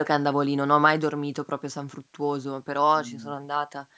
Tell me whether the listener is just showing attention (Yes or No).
Yes